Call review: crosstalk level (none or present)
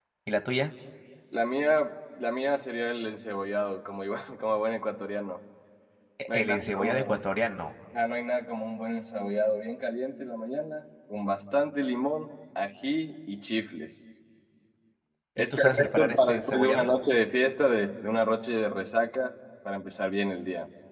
present